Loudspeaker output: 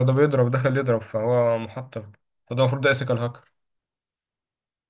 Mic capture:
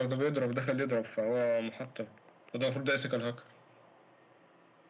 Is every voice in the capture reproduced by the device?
Yes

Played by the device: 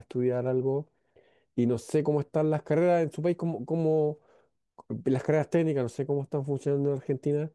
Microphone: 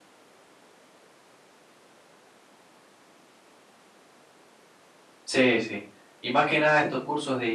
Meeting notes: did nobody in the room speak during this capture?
No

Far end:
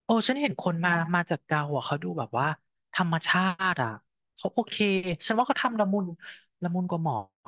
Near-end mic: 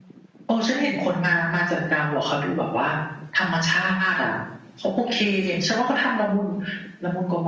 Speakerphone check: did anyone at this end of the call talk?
No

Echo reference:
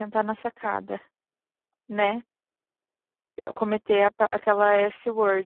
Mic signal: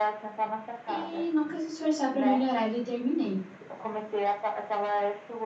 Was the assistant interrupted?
Yes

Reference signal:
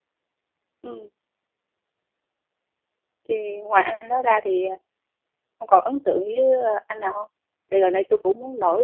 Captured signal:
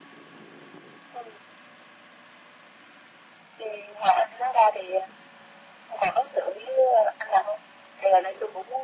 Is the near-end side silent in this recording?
Yes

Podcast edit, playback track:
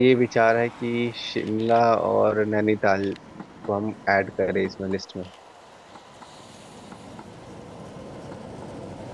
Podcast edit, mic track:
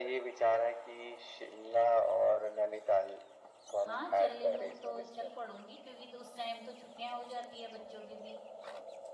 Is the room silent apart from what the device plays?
No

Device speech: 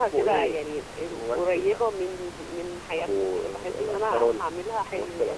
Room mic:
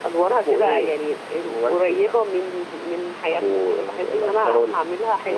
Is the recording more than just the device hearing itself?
No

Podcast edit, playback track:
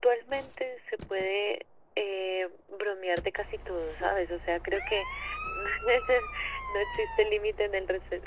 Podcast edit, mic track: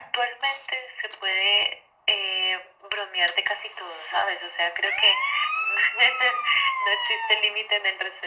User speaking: No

